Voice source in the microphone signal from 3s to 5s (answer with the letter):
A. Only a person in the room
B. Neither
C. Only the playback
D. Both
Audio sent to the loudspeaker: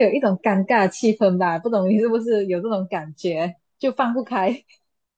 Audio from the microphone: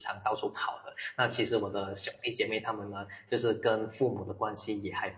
A